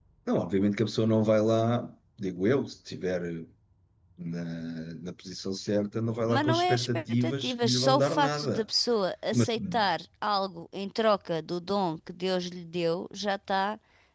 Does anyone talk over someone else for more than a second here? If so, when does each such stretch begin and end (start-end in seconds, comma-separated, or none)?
6.3-8.6